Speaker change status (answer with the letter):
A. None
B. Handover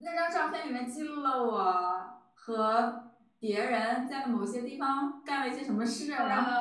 B